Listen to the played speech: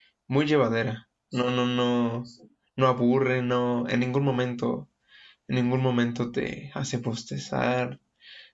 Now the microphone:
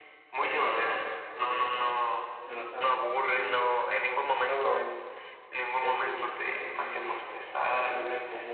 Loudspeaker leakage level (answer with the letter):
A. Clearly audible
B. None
A